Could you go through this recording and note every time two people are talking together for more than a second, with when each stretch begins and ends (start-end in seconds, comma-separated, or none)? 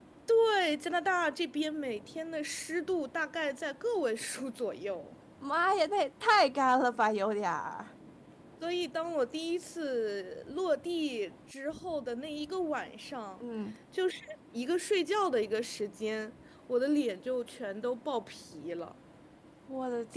none